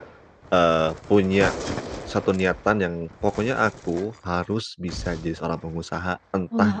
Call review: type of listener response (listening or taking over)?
listening